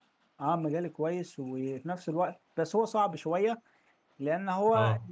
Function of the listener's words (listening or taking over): listening